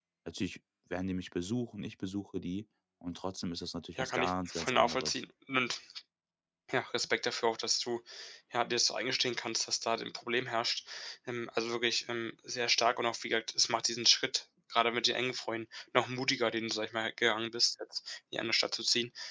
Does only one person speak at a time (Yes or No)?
No